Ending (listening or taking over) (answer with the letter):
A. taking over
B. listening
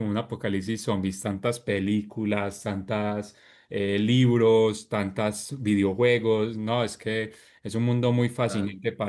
B